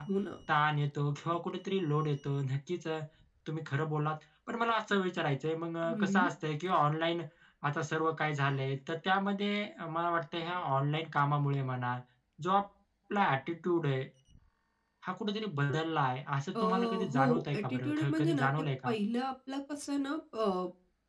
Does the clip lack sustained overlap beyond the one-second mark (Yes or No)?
No